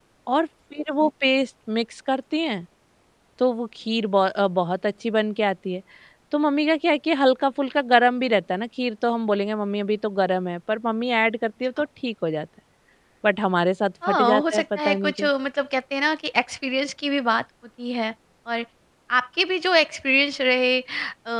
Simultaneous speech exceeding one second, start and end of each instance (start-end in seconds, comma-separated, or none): 14.1-15.3